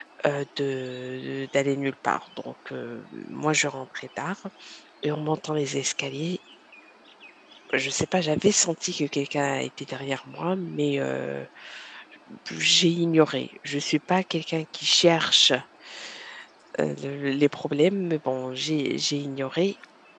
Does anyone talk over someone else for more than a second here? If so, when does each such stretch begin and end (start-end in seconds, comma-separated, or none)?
none